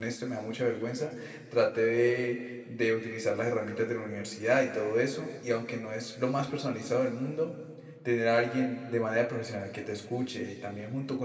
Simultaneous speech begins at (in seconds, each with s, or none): none